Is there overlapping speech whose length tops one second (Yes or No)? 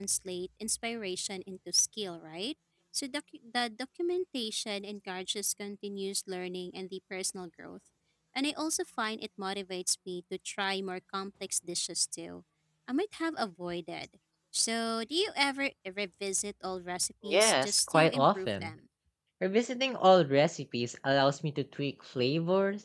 Yes